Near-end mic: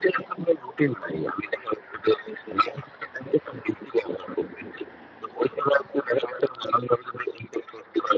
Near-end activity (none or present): none